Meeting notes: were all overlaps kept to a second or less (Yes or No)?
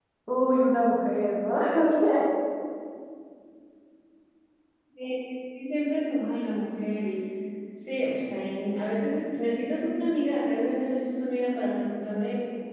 Yes